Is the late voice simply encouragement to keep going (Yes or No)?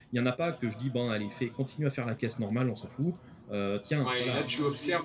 No